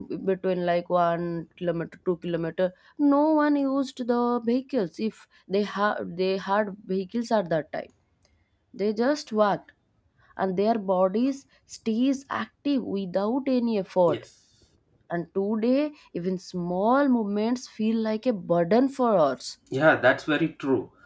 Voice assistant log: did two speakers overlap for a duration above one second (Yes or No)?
No